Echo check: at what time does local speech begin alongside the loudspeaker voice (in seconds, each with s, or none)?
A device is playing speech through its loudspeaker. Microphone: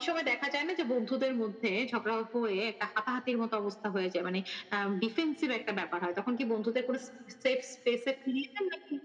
none